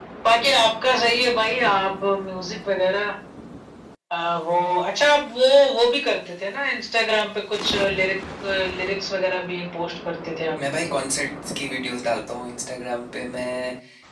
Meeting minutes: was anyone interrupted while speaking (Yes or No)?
No